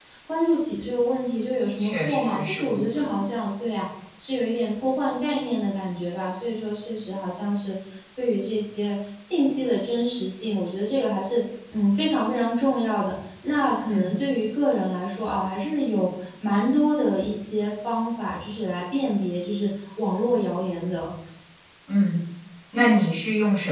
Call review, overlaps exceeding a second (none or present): present